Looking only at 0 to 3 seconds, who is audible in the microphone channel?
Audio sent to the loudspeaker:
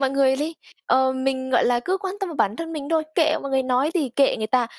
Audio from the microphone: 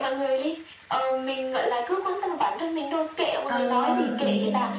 echo only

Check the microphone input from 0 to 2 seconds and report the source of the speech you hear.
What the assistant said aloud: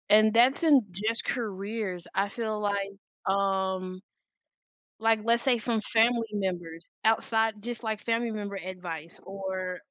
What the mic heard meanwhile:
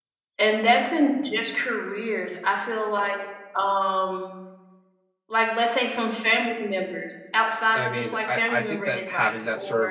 echo only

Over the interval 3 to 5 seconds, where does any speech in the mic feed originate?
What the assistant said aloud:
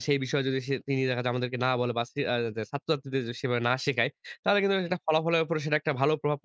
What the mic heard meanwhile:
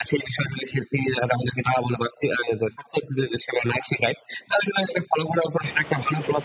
echo only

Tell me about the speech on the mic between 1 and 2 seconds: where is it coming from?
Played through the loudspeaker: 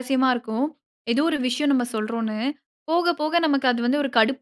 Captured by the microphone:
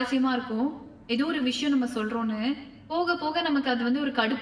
echo only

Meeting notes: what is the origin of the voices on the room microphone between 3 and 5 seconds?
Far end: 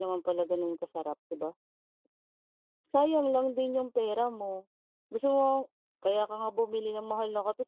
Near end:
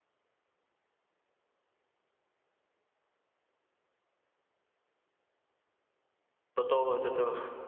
neither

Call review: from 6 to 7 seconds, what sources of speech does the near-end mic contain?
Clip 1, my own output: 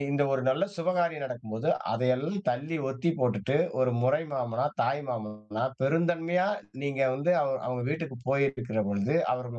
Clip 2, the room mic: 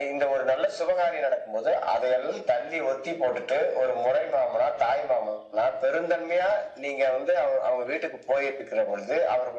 echo only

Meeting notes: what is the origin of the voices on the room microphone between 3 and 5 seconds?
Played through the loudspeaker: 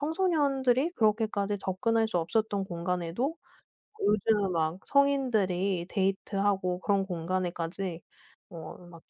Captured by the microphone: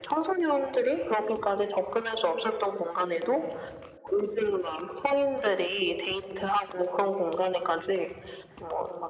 echo only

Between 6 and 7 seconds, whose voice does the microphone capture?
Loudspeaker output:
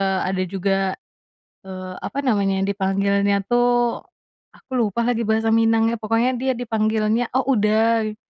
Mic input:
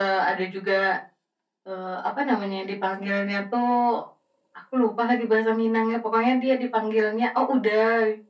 echo only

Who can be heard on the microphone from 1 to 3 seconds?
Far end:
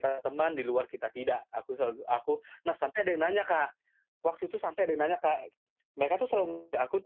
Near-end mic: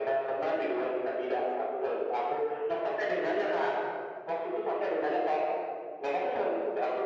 echo only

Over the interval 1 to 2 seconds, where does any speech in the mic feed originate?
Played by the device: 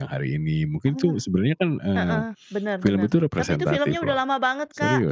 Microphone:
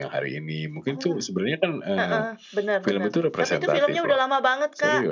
echo only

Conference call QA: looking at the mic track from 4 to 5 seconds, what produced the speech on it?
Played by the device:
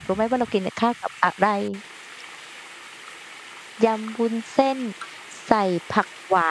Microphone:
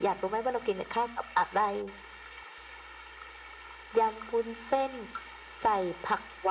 echo only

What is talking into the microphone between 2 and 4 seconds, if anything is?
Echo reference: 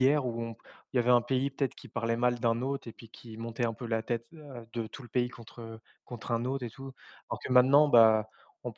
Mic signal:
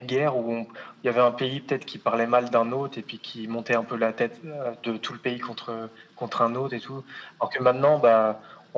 echo only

